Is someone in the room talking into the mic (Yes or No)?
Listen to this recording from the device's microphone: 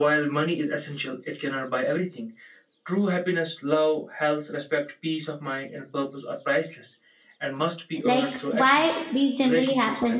Yes